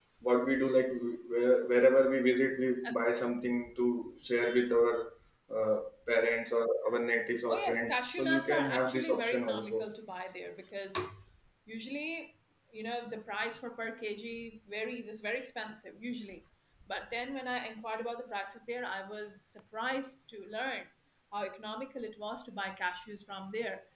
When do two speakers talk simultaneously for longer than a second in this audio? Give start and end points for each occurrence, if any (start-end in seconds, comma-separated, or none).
7.5-9.8